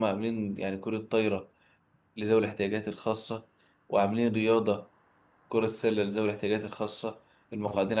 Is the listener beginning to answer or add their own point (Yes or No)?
No